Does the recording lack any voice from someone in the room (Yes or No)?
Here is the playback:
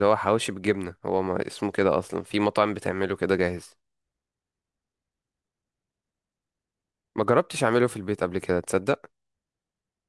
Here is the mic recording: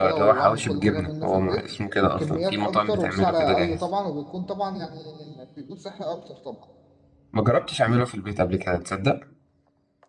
No